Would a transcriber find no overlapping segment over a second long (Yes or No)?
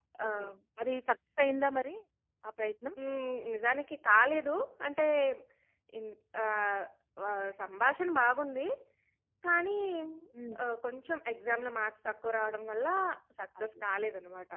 Yes